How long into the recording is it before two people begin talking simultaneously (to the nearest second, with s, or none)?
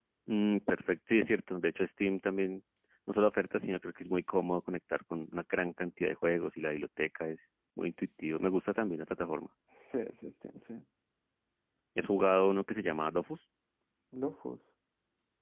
none